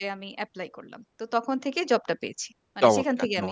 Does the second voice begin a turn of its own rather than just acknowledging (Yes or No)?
Yes